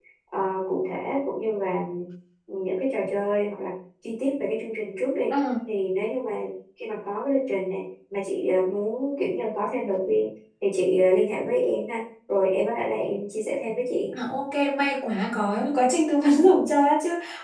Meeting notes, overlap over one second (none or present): none